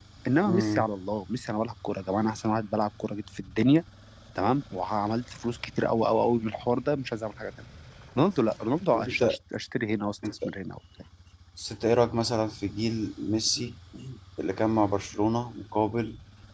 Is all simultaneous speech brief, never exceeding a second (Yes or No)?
Yes